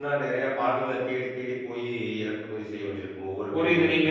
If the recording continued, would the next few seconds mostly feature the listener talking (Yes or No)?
Yes